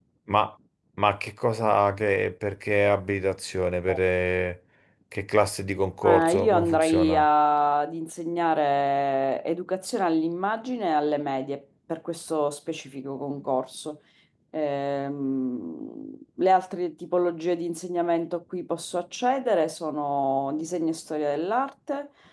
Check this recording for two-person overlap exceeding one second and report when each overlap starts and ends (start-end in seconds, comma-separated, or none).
6.0-7.3